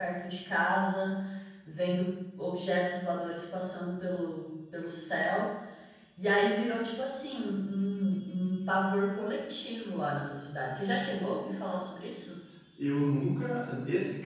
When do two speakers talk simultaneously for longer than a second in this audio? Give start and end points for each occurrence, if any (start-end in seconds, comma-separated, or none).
none